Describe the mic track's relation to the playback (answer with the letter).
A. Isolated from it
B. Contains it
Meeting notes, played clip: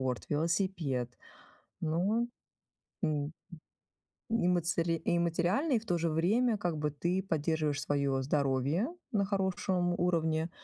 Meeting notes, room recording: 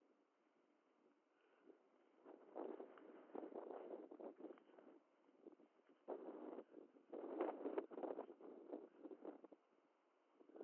A